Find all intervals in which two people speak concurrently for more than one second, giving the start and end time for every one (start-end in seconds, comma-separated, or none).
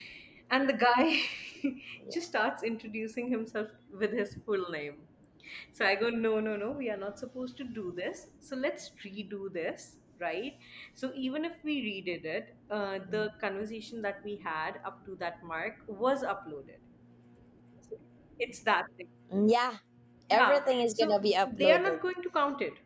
20.3-22.0